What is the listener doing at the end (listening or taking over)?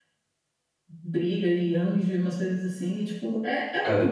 listening